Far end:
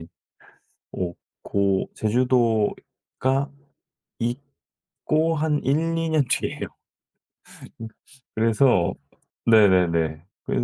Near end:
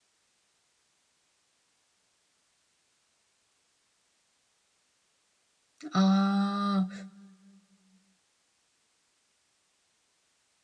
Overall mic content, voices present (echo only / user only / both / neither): user only